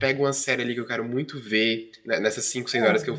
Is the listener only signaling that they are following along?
Yes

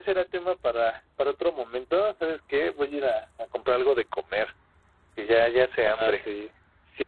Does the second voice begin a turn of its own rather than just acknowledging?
Yes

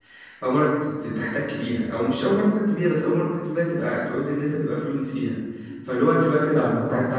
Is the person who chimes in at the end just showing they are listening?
Yes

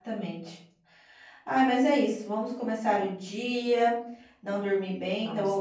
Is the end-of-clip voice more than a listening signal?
No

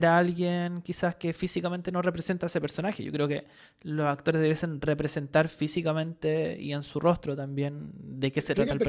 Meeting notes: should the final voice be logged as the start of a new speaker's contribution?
Yes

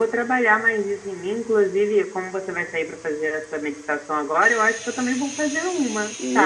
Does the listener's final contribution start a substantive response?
Yes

